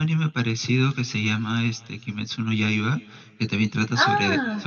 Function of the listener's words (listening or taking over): listening